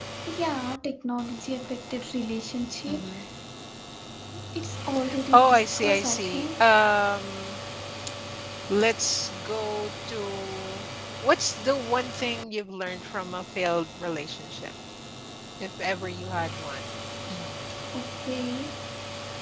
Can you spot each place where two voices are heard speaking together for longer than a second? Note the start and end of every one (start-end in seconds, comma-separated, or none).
5.3-6.7